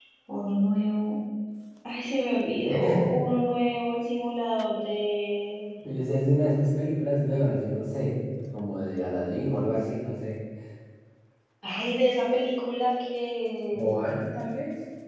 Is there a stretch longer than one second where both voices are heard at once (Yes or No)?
No